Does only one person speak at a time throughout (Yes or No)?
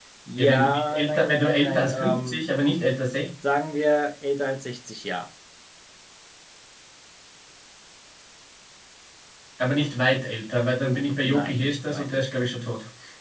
No